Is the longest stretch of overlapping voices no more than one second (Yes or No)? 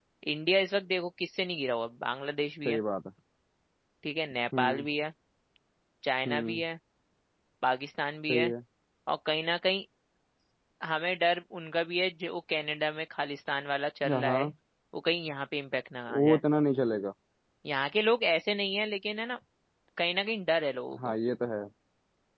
Yes